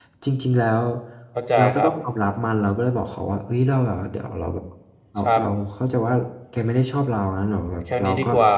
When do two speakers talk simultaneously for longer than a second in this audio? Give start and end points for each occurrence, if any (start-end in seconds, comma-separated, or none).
none